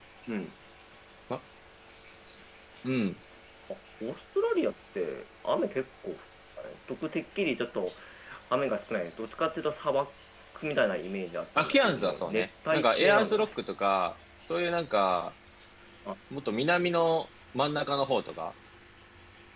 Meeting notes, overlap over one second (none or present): present